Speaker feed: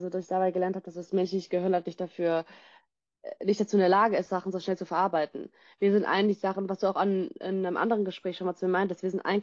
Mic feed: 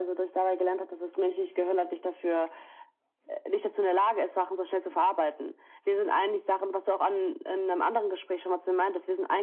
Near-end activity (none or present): none